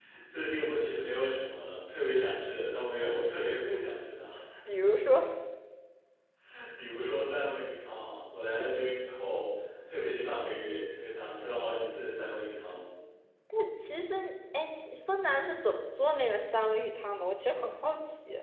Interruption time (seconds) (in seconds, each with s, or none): none